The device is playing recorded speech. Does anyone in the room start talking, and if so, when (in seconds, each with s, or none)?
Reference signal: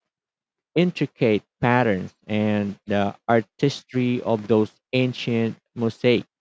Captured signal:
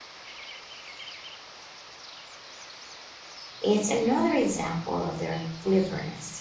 3.6 s